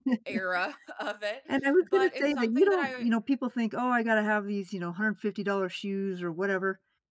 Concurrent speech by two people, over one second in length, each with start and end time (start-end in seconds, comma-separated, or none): 1.8-3.0